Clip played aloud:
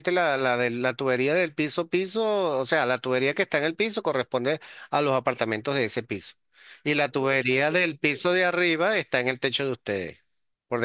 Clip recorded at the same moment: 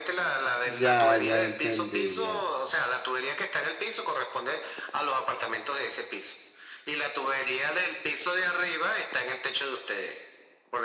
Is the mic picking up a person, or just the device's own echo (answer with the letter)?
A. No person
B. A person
B